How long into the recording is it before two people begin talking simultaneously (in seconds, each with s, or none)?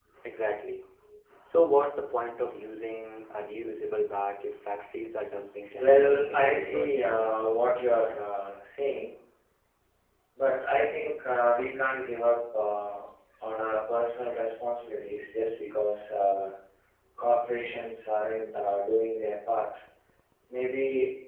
5.7 s